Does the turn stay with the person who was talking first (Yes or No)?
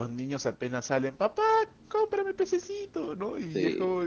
Yes